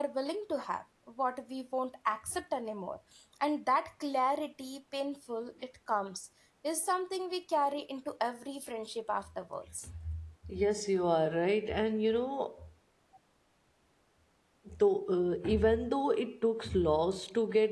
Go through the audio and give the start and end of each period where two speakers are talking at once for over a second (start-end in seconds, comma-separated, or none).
none